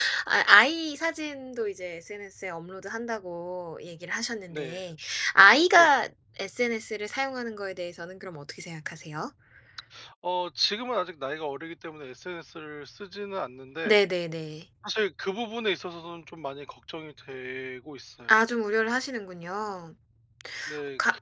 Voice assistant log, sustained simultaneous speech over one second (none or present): none